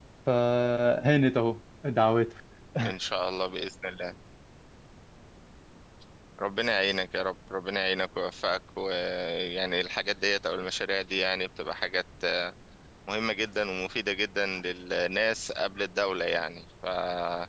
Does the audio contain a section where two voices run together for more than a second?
No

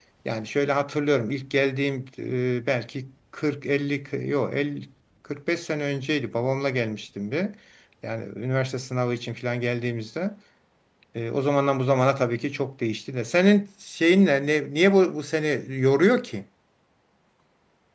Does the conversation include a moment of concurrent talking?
No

